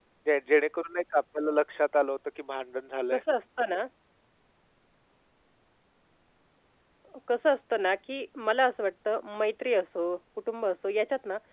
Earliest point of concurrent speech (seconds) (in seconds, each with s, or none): none